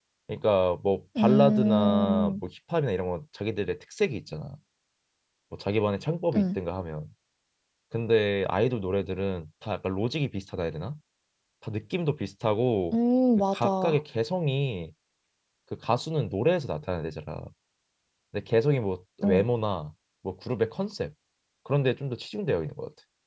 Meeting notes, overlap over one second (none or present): present